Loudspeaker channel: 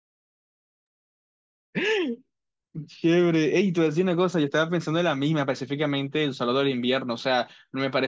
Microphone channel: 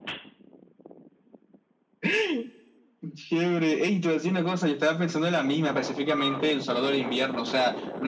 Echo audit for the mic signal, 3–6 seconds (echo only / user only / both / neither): echo only